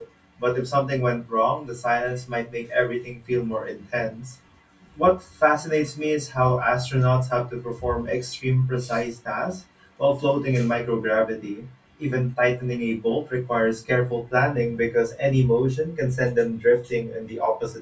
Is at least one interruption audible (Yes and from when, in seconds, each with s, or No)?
No